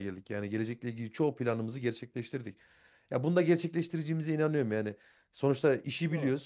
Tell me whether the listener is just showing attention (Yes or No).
Yes